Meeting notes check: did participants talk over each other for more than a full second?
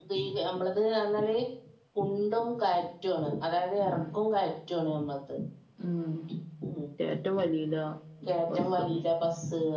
No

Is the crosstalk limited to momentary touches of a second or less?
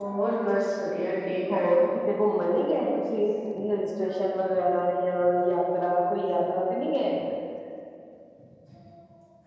Yes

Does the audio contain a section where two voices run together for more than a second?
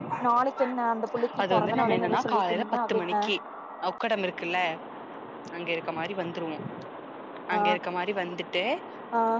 Yes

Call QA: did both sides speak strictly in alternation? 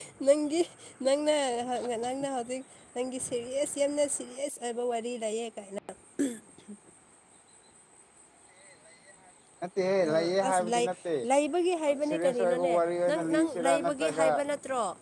No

